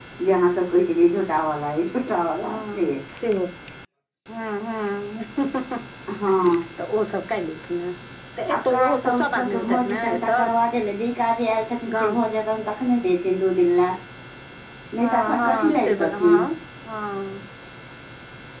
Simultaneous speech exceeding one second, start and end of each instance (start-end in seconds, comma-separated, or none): 8.5-10.3, 15.0-16.4